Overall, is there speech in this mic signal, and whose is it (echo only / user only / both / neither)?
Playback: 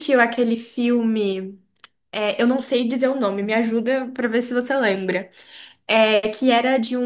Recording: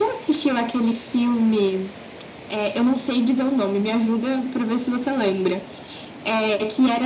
echo only